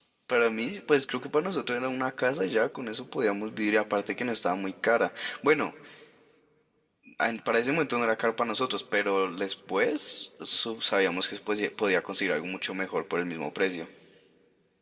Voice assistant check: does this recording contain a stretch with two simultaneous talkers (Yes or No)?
No